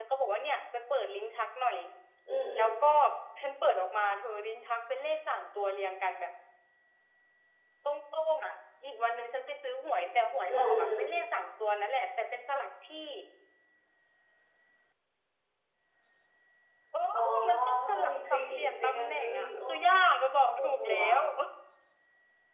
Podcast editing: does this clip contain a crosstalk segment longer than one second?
Yes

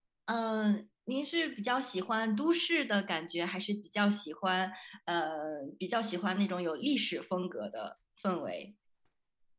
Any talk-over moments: No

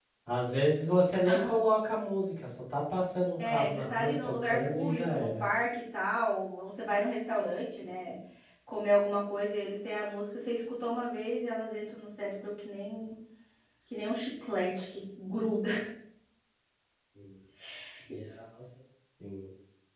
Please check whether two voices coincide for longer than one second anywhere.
Yes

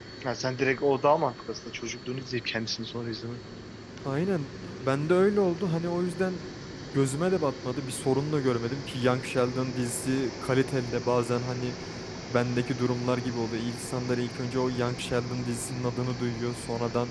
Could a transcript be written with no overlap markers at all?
Yes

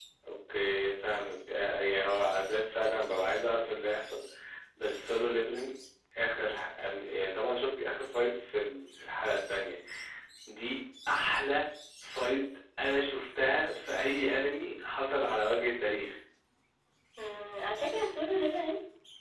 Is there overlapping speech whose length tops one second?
No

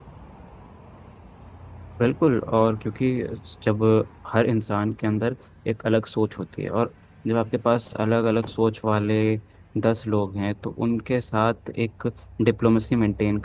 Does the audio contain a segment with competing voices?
No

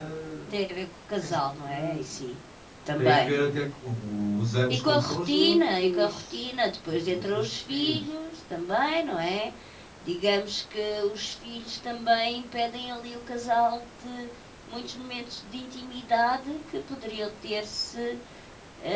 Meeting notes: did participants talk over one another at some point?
Yes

